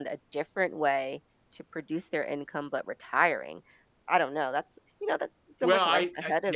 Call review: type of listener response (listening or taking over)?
taking over